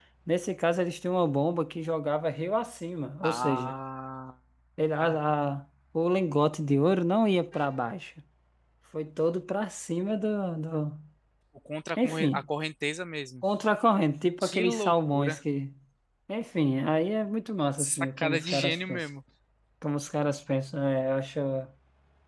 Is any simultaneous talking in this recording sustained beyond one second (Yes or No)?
Yes